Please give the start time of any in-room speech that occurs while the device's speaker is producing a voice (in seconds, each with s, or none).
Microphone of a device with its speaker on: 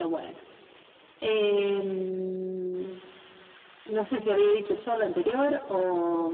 none